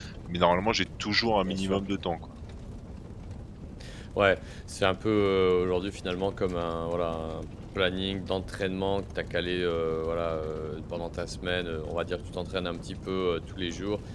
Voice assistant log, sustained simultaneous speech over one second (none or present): none